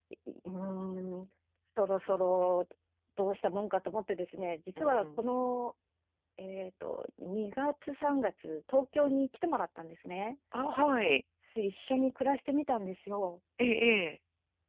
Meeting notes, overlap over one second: none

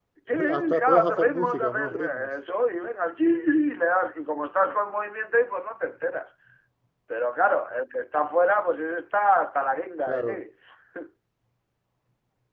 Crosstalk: present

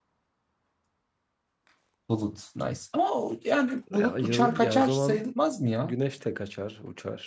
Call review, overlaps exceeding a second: present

